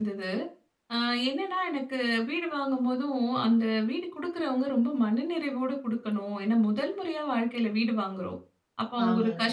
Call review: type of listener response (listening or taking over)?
listening